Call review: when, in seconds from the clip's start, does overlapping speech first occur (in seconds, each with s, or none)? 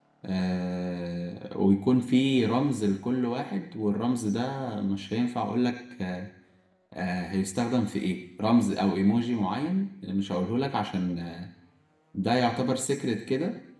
none